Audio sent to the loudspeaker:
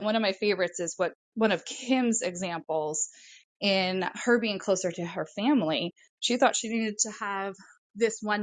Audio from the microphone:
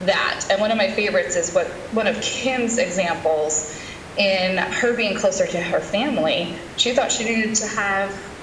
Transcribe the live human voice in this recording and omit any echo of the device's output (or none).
none